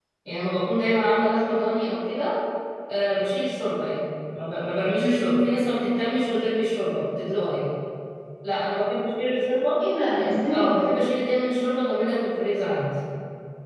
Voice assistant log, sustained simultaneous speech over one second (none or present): none